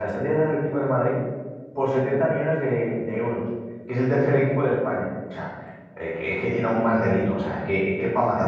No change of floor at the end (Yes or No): No